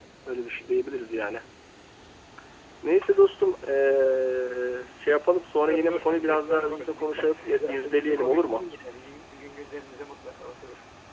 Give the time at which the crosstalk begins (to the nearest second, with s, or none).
6 s